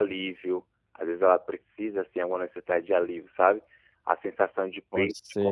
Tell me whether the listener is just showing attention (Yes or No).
Yes